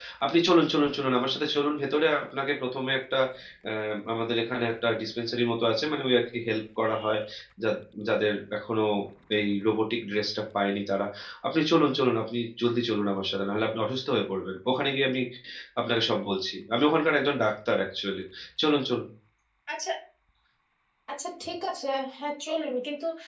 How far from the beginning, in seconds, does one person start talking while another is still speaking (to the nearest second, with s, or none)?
none